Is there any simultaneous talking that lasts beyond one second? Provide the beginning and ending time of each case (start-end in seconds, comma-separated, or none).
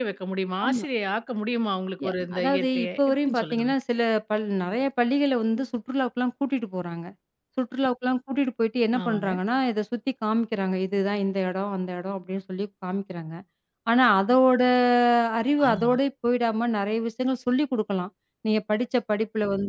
2.0-3.7